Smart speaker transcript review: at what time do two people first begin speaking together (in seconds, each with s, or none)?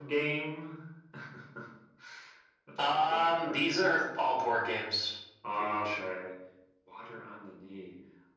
2.8 s